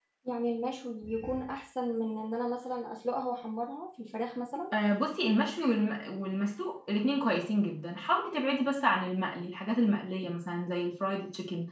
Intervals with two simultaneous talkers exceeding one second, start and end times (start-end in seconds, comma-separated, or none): none